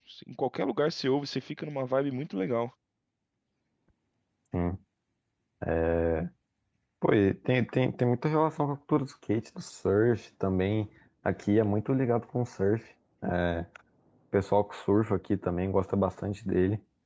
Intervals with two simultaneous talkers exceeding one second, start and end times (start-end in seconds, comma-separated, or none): none